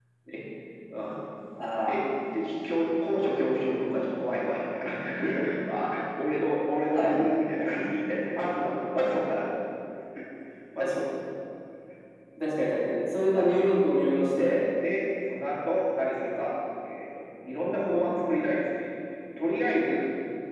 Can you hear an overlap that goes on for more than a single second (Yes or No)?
No